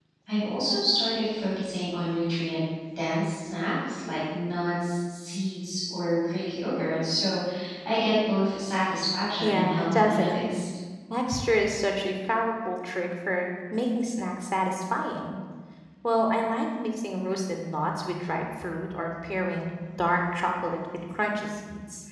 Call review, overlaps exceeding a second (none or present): present